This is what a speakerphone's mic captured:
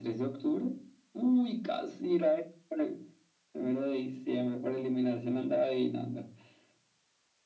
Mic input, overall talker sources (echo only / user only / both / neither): echo only